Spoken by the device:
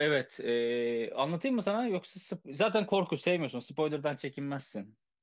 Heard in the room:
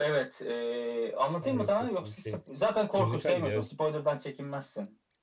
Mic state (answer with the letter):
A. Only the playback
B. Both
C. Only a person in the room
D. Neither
B